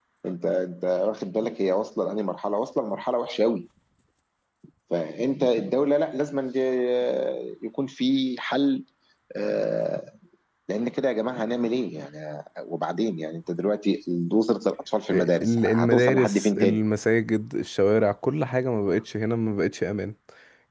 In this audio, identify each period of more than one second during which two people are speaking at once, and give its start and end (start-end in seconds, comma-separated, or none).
15.1-16.8